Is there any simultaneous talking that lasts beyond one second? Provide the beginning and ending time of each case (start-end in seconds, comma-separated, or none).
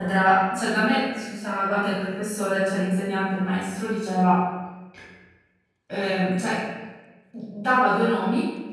none